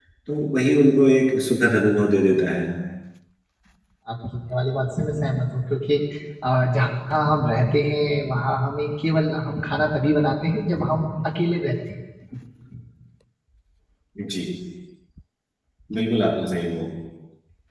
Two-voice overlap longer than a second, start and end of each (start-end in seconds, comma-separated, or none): none